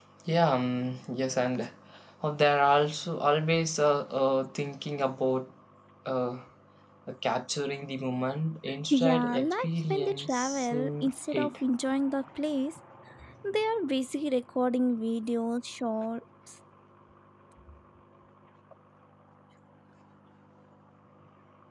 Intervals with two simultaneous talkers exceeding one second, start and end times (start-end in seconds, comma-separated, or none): 8.9-11.5